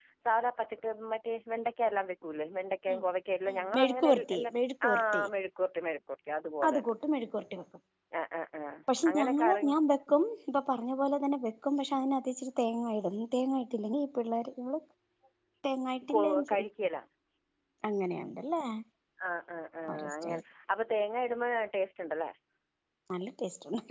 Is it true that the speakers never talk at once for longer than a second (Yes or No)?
No